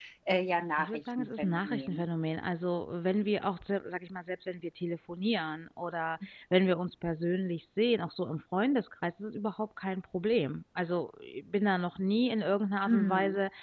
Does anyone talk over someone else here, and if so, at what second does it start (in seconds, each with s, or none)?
0.8 s